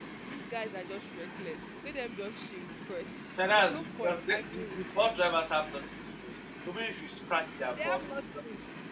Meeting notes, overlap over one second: present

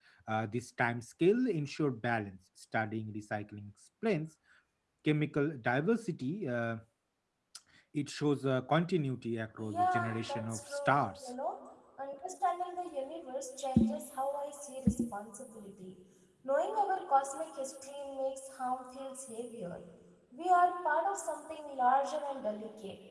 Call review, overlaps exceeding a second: present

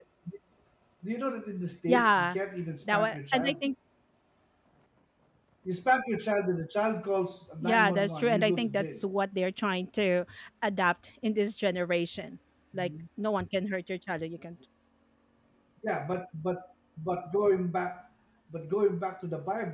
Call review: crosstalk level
present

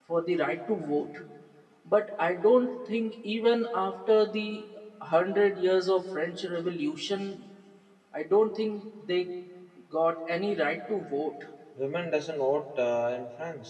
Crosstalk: none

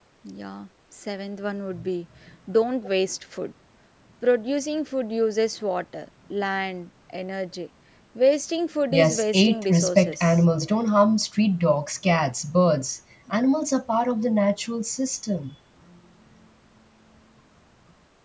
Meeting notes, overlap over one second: present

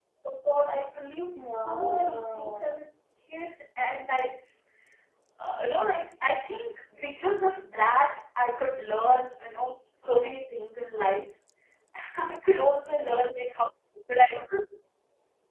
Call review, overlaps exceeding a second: present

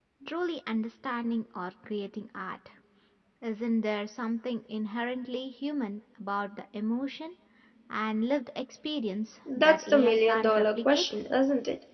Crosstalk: present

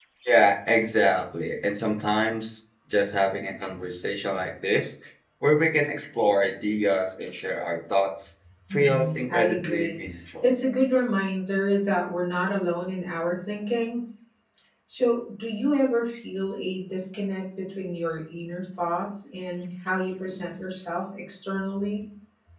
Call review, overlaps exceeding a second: present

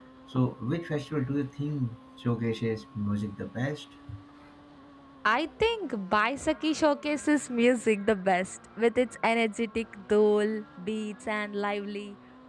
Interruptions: none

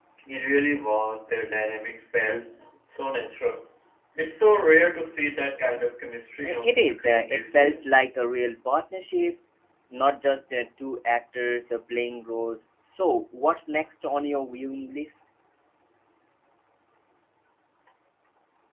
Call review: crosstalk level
present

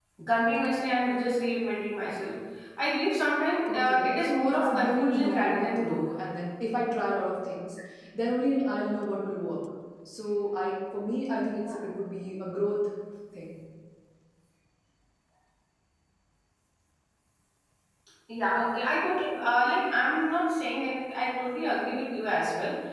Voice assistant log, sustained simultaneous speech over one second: present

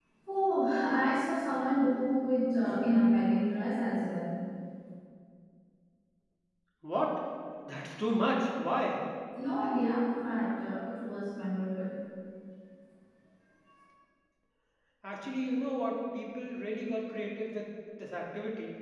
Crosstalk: none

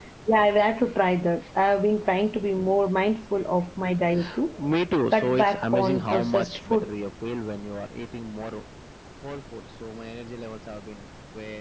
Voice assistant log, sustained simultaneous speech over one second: present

